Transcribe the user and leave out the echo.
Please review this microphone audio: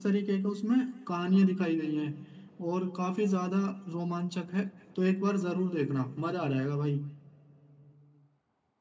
none

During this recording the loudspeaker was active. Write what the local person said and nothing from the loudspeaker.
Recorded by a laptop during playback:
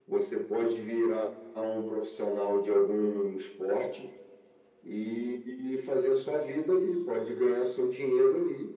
none

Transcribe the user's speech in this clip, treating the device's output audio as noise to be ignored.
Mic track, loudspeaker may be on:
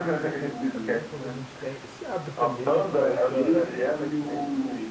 É bom quando a gente tem, se abre também, né, para essa

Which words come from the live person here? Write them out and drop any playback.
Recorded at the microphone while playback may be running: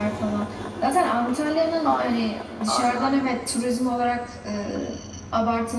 Ay, aynen aynen.

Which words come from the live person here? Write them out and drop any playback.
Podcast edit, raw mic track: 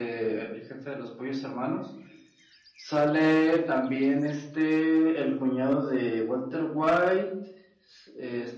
none

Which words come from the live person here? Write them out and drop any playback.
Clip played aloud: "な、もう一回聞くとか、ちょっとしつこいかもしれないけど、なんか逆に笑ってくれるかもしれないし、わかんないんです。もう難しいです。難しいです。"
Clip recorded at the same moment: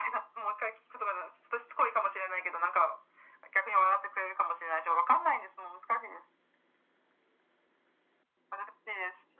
none

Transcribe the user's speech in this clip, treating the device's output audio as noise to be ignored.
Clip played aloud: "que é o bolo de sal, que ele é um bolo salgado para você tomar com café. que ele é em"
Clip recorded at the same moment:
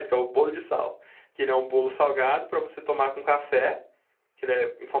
none

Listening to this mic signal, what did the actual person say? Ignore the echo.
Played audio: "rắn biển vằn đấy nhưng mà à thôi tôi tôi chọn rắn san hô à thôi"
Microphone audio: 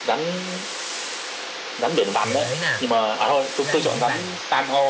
giờ gợi ý nè rắn biển vằn

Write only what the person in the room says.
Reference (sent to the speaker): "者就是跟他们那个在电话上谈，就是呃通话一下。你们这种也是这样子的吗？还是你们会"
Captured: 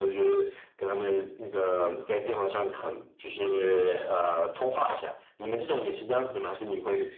none

